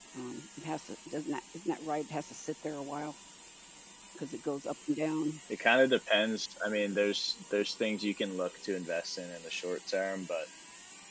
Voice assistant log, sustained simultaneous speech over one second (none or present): none